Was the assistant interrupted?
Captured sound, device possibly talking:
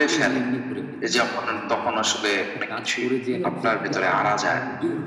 Yes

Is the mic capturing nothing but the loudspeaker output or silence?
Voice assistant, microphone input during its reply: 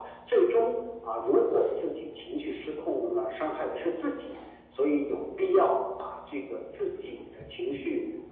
Yes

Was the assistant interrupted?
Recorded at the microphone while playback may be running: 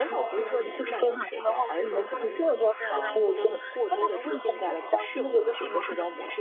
Yes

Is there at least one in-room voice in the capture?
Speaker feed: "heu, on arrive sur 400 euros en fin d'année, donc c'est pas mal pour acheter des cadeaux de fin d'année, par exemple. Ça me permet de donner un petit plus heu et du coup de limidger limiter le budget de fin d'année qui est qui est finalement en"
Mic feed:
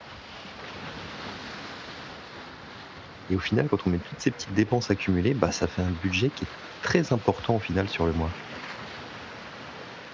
Yes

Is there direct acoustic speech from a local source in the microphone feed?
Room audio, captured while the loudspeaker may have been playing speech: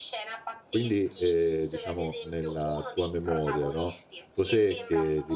Yes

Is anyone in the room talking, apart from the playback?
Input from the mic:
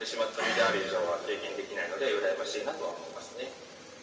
Yes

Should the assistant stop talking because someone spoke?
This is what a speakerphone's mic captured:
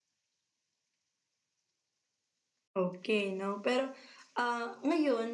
Yes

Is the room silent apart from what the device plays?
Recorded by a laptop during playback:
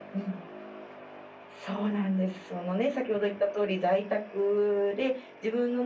Yes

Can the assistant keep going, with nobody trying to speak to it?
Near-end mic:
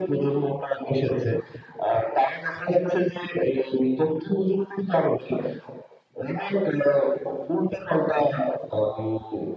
Yes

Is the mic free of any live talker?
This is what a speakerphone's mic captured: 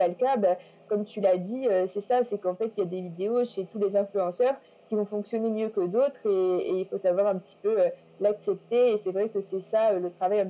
Yes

